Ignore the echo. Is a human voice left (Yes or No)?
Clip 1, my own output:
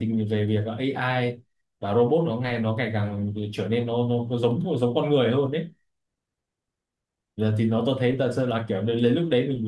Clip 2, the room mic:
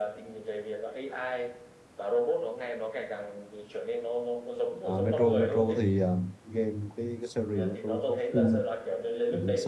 Yes